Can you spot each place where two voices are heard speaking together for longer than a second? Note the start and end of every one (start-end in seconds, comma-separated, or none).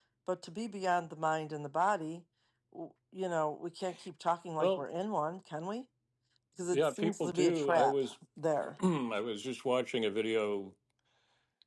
6.7-8.1